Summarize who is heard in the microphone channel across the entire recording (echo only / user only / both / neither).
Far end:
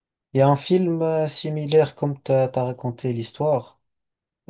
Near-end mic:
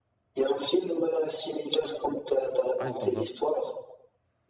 both